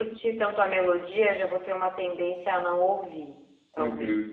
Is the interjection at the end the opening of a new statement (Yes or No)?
Yes